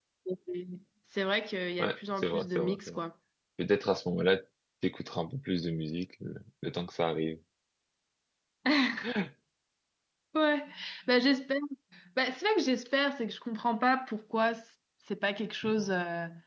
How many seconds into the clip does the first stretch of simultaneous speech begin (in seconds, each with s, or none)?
1.8 s